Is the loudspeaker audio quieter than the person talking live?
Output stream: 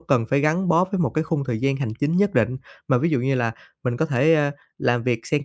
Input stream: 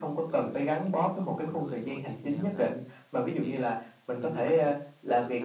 No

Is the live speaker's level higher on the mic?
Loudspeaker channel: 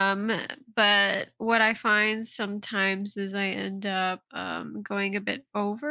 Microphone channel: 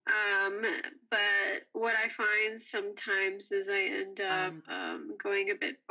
No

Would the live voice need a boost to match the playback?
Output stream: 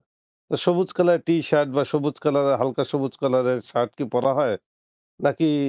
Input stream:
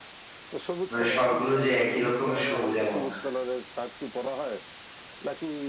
No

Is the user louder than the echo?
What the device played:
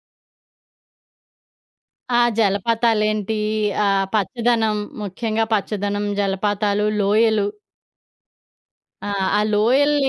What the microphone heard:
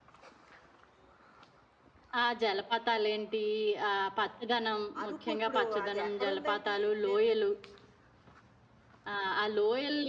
No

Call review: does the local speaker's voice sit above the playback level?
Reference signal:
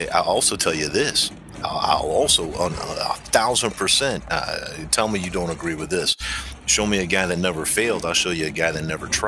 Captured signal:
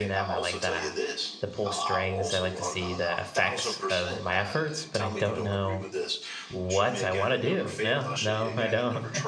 Yes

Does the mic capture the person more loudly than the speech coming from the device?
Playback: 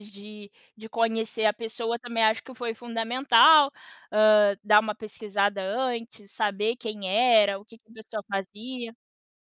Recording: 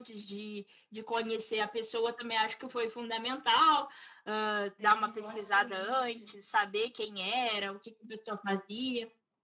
No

